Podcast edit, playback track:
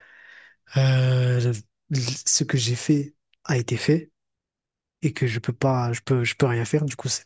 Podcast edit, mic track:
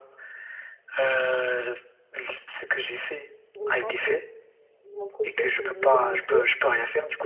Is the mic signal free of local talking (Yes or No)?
No